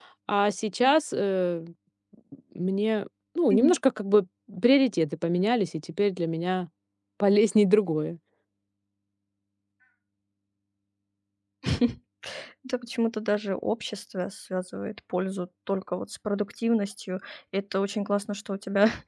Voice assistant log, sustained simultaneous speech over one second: none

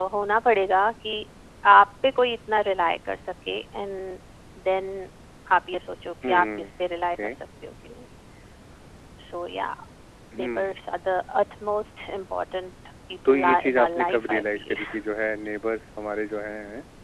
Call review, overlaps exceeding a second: present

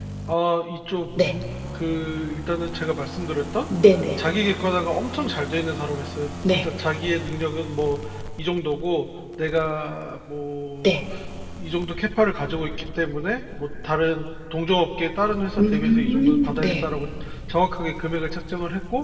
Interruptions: present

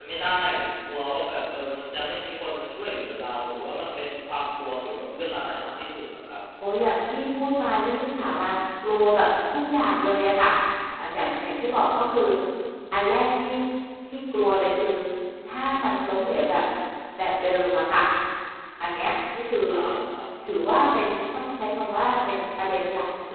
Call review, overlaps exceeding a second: none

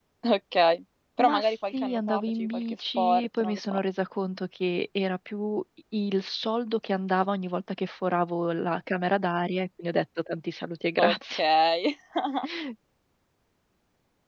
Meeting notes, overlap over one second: present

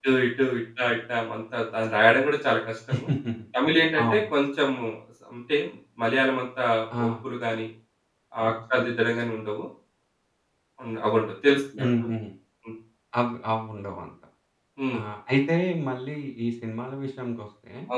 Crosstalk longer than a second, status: none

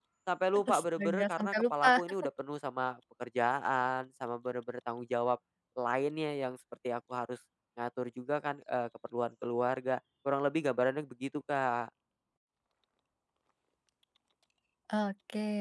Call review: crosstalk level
present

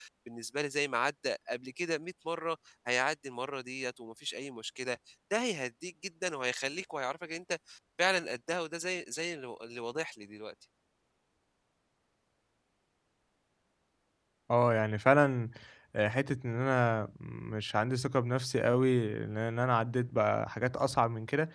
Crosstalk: none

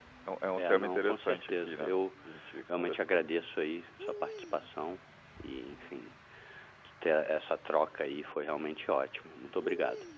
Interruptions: present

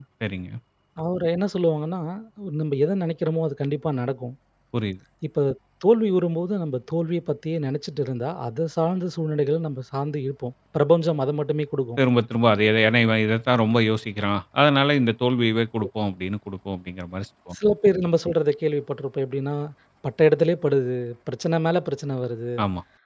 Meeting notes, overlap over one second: none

